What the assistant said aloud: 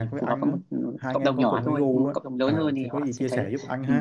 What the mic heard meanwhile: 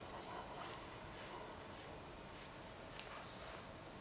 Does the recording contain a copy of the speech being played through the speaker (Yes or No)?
No